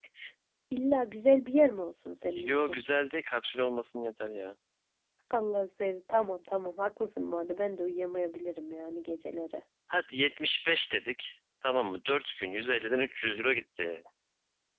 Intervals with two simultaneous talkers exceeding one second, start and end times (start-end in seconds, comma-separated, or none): none